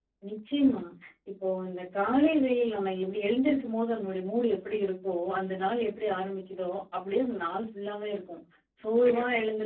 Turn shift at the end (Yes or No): No